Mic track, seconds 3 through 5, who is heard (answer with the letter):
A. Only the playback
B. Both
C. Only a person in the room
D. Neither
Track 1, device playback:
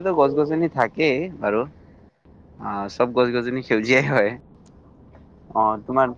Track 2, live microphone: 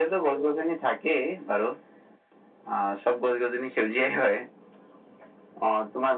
A